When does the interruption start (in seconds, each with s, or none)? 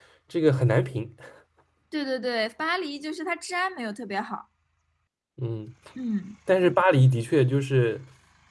none